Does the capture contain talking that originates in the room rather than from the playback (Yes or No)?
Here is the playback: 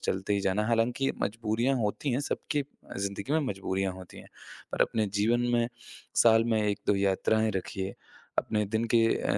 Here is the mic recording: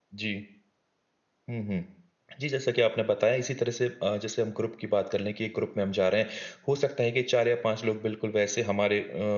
Yes